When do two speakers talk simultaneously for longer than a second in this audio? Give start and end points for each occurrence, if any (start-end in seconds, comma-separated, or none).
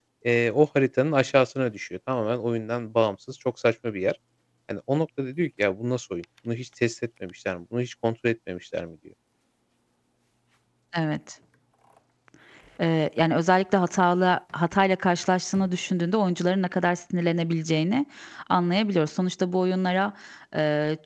none